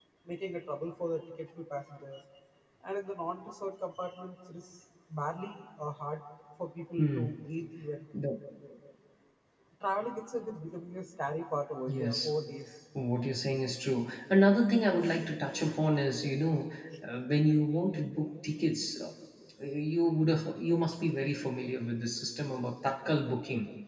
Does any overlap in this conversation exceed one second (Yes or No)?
No